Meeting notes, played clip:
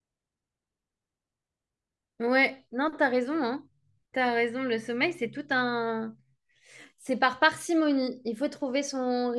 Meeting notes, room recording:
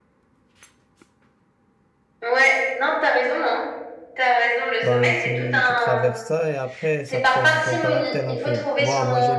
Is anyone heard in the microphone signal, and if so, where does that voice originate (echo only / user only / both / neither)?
both